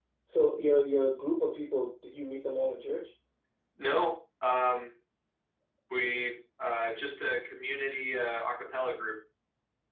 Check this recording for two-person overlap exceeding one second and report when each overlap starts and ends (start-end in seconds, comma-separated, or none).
none